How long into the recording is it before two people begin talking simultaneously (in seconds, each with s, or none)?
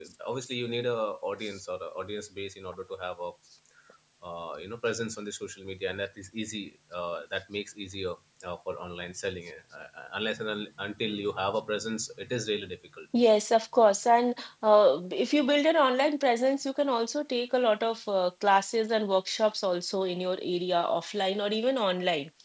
none